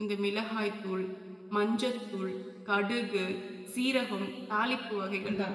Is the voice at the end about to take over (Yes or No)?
Yes